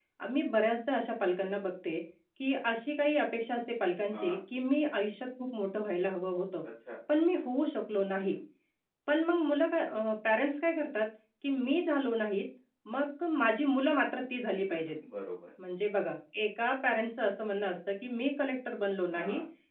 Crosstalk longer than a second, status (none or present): none